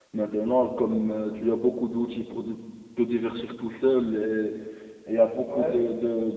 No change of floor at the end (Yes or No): Yes